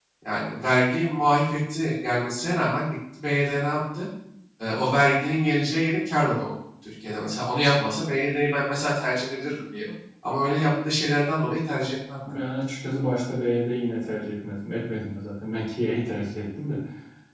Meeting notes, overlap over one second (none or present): none